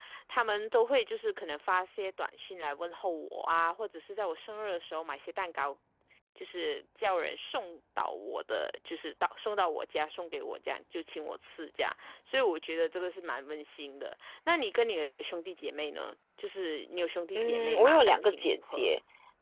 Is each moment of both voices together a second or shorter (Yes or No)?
No